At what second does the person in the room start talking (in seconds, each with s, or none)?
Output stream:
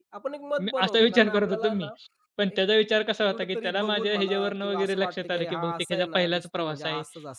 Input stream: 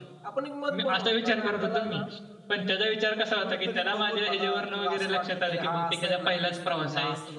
none